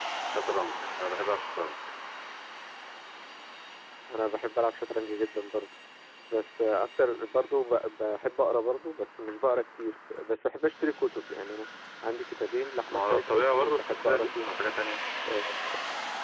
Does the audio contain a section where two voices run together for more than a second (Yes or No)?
Yes